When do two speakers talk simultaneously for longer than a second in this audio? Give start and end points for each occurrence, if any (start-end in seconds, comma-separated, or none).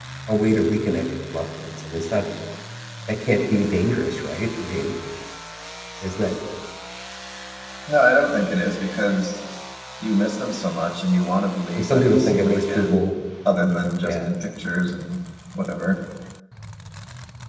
11.8-13.0